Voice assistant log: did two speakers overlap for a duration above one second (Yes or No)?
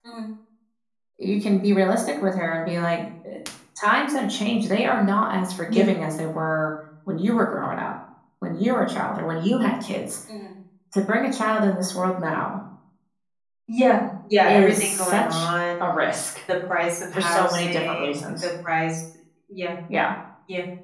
Yes